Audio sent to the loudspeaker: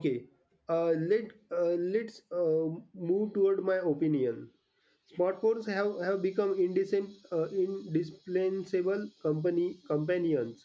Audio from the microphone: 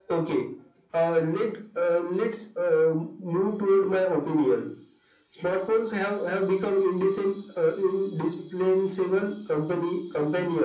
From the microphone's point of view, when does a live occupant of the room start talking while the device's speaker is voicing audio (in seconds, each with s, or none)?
none